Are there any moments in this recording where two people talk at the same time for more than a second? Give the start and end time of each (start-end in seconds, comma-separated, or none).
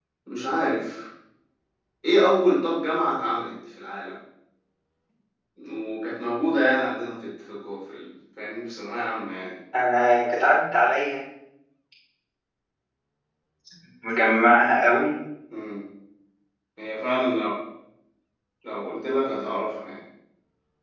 none